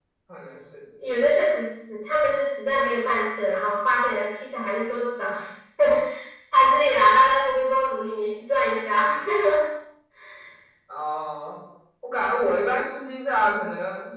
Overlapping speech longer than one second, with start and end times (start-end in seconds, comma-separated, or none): none